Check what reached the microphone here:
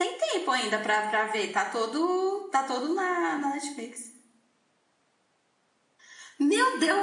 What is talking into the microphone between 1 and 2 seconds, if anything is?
user only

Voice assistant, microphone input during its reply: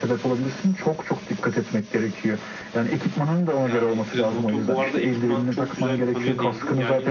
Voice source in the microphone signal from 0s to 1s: echo only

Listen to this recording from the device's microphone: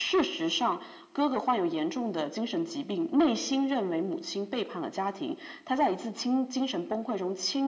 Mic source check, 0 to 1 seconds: echo only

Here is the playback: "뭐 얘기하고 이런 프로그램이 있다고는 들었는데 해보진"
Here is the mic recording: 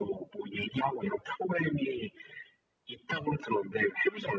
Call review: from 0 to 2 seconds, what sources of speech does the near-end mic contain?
echo only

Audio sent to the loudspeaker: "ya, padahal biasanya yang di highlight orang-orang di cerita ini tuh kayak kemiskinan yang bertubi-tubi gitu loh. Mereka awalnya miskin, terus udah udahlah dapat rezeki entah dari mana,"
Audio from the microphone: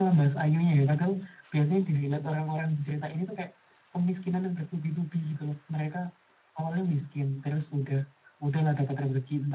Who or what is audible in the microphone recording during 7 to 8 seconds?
echo only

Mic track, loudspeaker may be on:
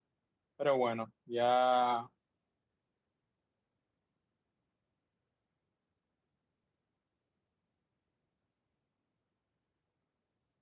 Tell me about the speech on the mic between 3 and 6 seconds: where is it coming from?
neither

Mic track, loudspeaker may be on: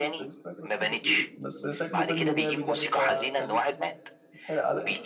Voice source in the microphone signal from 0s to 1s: both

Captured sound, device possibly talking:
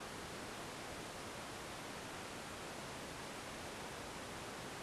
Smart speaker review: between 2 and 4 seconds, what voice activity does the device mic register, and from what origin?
neither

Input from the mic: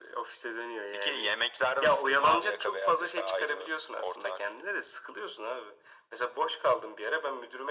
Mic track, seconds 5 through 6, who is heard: echo only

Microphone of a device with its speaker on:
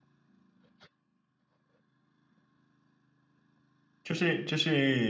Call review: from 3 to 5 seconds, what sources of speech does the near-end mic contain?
user only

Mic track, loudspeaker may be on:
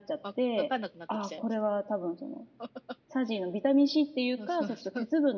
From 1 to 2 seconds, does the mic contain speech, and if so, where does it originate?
both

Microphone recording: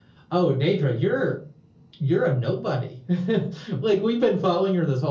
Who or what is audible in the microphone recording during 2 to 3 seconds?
echo only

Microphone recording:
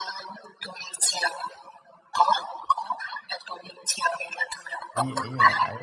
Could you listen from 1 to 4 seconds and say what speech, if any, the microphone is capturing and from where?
echo only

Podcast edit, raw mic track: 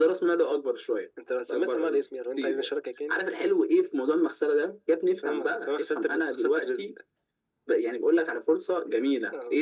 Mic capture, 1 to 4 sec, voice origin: echo only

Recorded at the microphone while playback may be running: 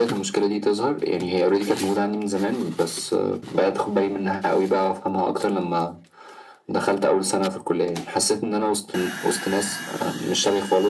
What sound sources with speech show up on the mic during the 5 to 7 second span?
echo only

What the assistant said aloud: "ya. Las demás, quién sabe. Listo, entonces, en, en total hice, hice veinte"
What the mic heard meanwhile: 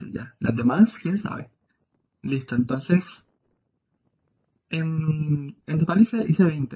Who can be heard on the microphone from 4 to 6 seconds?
echo only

